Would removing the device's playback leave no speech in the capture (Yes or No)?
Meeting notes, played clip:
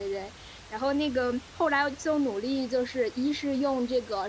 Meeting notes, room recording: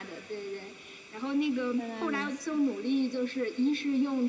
No